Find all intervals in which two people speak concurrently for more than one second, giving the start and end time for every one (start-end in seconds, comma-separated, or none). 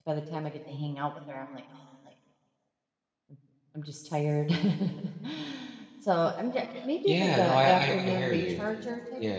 7.0-8.6